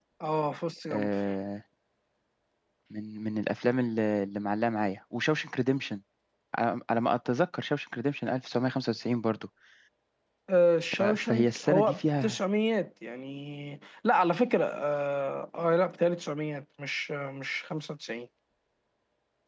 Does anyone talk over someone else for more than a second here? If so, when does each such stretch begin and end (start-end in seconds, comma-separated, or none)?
11.0-12.4